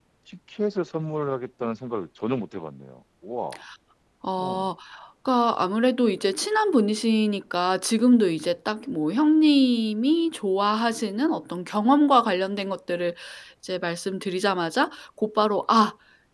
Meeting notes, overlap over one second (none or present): none